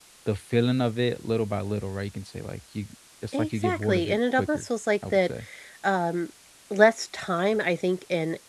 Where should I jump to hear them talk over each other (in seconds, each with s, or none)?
3.3 s